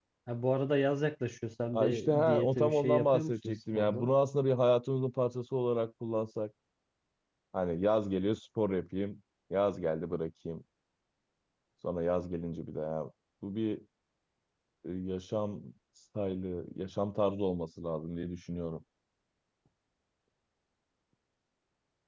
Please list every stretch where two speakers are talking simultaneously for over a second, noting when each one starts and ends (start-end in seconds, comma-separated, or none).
1.7-4.1